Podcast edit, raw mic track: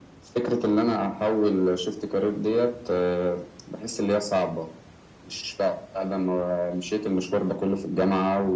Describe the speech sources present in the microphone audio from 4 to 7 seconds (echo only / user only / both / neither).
echo only